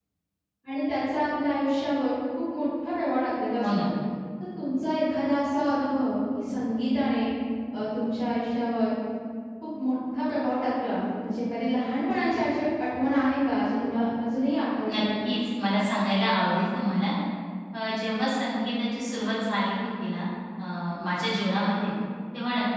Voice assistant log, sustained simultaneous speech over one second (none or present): none